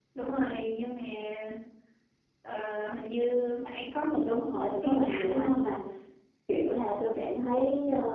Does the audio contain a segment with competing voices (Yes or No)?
Yes